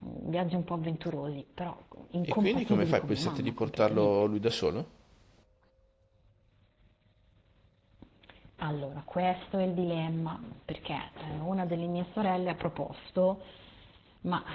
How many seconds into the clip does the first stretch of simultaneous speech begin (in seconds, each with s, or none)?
2.3 s